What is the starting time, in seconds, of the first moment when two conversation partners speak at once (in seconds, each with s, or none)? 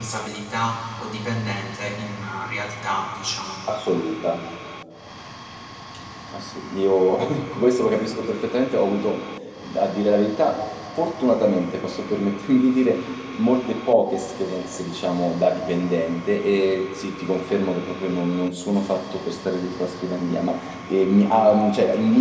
none